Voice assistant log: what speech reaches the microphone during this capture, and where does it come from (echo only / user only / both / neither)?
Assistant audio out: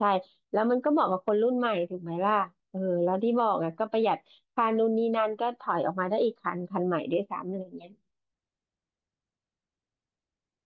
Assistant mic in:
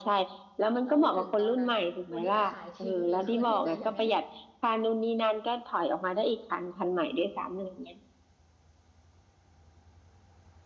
both